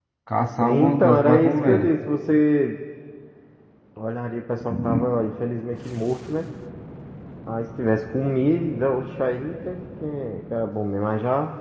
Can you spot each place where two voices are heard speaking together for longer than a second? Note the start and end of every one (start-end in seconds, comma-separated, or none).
0.6-1.9